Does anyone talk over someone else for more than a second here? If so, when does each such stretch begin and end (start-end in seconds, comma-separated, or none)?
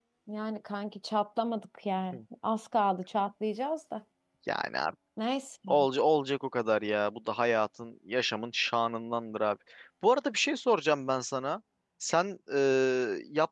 none